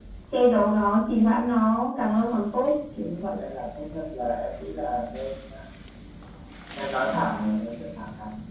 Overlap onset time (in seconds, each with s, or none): none